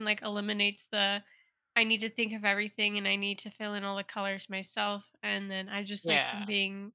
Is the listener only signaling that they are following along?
Yes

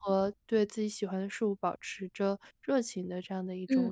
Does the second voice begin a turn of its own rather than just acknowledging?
Yes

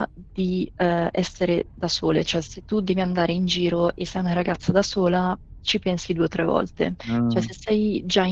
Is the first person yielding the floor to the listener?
No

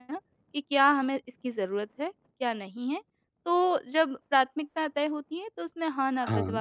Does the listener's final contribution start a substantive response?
No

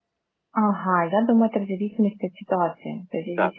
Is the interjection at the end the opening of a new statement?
No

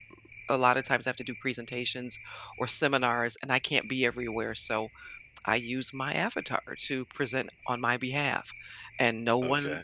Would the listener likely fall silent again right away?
No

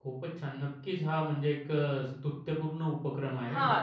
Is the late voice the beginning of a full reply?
Yes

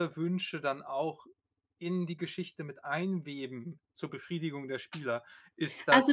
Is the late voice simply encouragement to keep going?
No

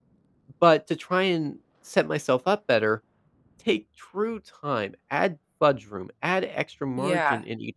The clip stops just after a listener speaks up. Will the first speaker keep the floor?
Yes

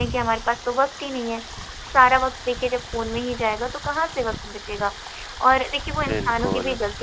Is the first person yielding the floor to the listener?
No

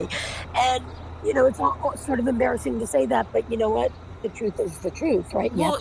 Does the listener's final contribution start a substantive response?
Yes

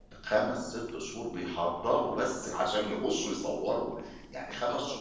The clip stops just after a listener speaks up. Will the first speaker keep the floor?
Yes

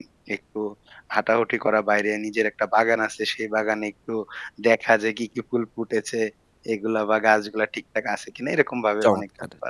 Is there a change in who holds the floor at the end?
Yes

